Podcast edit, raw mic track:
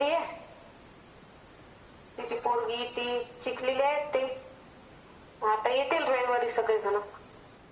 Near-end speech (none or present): none